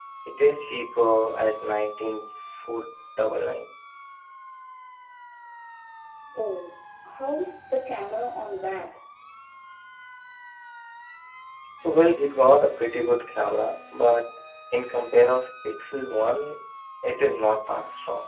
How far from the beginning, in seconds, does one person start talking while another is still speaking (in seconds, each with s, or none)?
none